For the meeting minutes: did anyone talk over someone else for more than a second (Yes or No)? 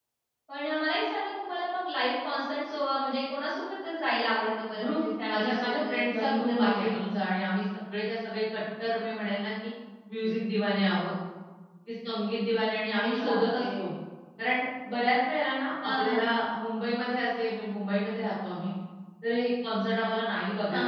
Yes